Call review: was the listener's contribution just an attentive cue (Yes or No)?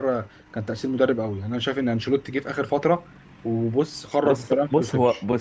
No